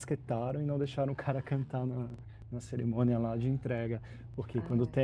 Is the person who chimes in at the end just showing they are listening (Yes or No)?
Yes